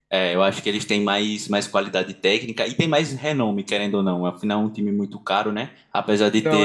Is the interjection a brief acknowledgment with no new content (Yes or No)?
Yes